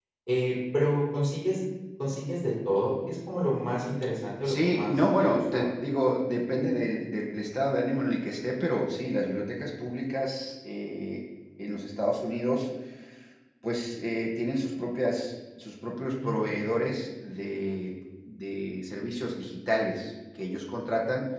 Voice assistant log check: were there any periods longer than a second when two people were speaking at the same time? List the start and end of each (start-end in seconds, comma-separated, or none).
4.5-5.7